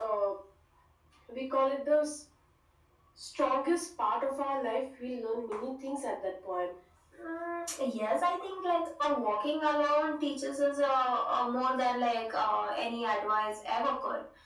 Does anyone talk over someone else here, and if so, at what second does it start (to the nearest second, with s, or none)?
none